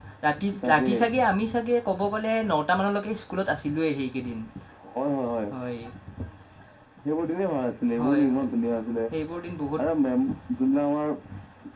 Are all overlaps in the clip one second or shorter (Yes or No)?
Yes